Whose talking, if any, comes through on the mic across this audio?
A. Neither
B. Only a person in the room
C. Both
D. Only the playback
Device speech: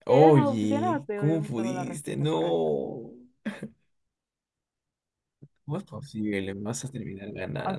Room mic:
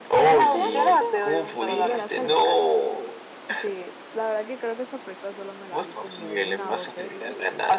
C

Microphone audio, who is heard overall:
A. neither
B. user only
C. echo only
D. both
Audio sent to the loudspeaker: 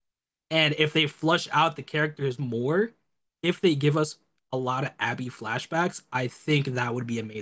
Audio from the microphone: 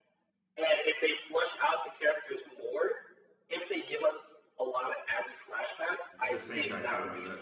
D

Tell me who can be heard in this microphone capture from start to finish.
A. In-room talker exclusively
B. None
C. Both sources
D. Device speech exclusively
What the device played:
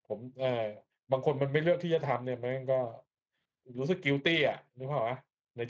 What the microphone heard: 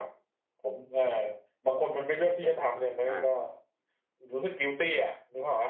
C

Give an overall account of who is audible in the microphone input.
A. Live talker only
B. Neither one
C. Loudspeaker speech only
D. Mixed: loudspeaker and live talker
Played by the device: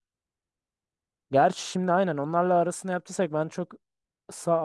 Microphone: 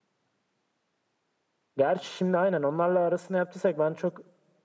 C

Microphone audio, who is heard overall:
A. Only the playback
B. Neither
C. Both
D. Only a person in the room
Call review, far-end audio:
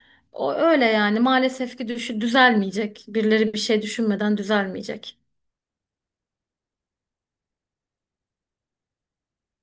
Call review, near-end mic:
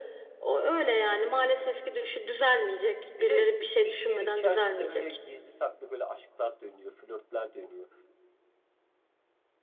C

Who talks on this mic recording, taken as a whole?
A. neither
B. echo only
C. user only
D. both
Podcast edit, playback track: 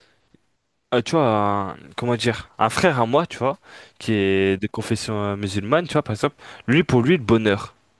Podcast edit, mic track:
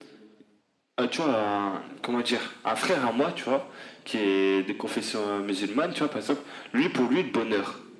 B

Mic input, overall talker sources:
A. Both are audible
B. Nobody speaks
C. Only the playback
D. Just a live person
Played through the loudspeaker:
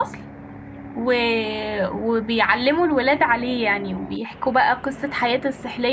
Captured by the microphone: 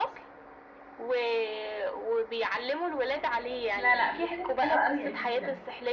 A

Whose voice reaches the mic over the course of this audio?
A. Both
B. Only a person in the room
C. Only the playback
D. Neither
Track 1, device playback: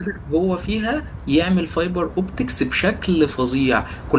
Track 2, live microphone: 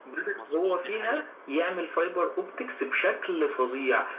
A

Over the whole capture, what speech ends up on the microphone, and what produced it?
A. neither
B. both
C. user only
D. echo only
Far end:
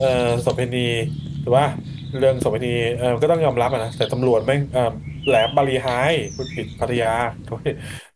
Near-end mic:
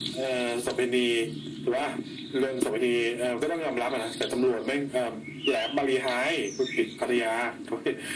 D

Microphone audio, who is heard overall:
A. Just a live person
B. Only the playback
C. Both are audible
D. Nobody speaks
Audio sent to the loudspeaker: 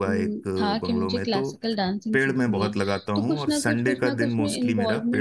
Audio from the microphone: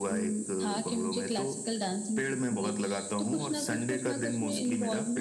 B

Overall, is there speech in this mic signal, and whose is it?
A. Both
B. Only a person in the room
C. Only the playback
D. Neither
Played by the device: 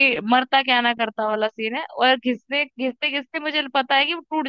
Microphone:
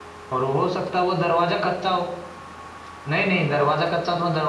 B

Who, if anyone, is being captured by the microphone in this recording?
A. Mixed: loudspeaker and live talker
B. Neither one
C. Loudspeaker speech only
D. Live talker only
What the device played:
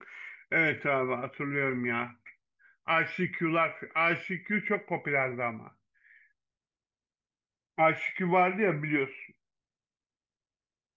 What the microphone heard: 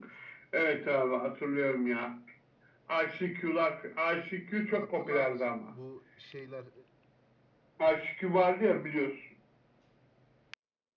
A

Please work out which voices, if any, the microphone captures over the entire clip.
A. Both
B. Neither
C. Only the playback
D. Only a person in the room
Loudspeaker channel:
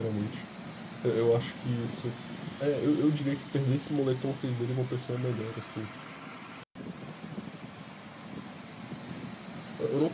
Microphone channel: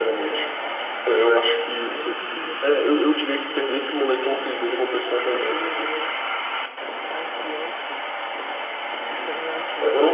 A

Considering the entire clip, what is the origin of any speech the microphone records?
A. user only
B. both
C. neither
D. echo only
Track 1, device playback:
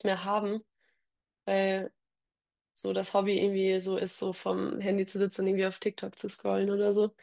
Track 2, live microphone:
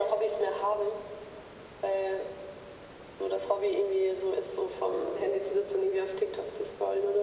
D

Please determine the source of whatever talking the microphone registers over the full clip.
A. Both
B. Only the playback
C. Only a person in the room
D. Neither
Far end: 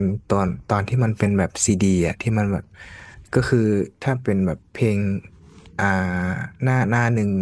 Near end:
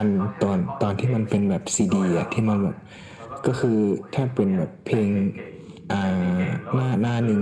A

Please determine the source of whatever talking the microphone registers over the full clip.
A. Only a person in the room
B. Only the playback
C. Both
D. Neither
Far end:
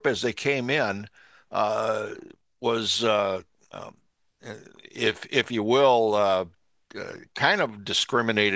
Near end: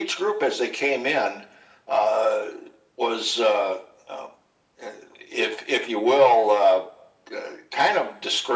B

